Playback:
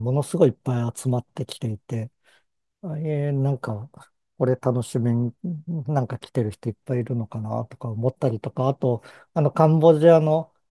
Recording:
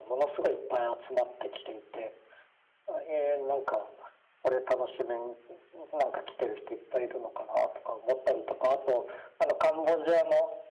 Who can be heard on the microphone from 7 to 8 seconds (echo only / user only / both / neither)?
echo only